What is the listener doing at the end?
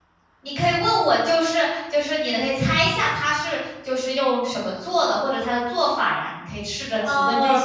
taking over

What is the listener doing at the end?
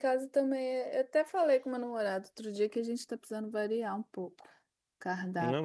taking over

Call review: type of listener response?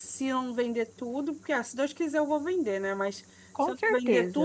listening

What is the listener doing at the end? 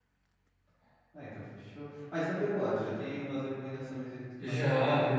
taking over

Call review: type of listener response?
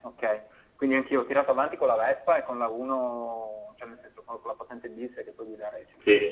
listening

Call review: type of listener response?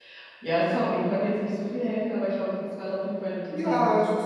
taking over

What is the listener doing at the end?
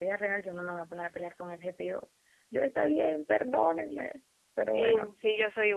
taking over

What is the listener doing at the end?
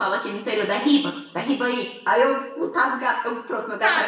taking over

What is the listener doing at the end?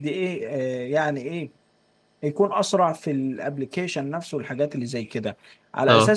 listening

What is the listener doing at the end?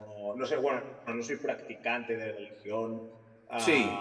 listening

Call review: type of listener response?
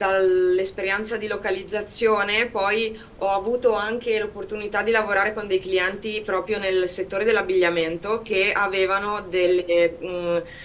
listening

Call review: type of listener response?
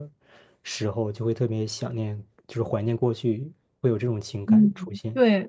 taking over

